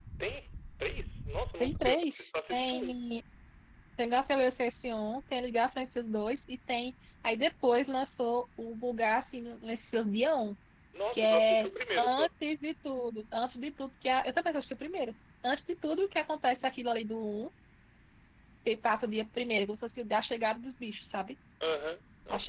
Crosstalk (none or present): present